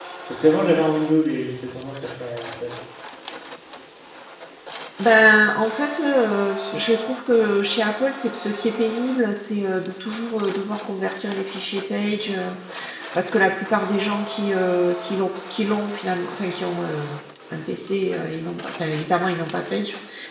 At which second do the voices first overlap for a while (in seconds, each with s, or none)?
none